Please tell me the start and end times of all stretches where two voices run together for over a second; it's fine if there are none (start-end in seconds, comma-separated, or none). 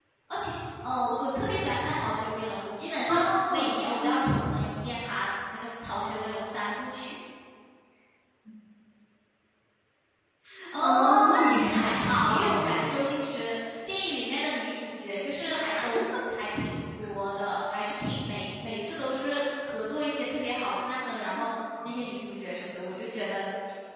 3.1-4.5, 10.8-13.0